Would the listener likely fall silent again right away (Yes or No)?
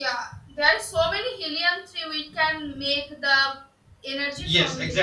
No